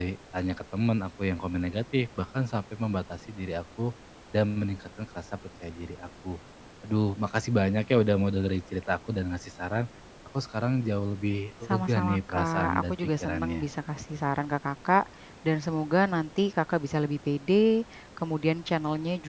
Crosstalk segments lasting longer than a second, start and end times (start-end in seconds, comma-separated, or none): 11.7-13.7